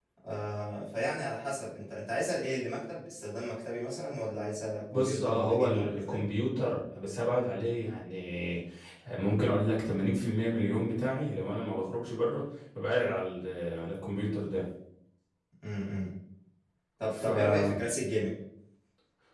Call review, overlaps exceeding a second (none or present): present